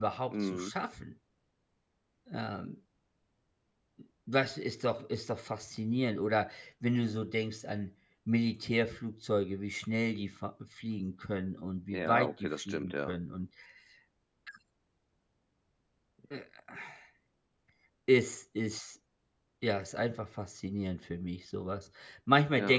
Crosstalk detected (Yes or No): Yes